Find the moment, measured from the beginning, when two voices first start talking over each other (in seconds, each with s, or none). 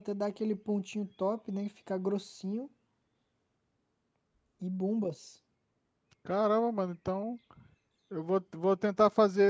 none